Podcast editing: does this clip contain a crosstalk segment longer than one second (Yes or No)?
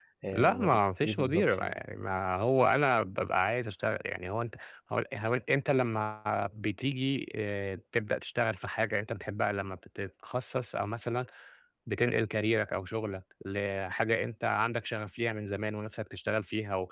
Yes